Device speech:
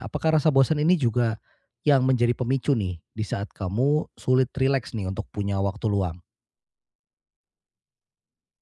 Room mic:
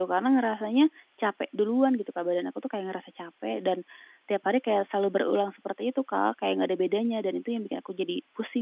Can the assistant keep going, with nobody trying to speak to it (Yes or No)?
No